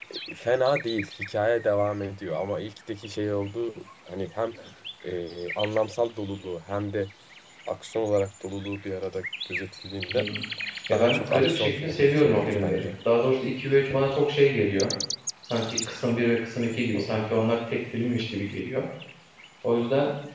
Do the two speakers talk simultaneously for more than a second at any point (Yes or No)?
Yes